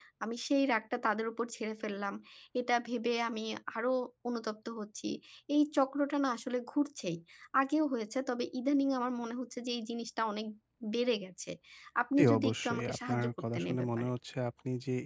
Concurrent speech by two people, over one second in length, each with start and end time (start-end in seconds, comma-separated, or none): 12.2-14.1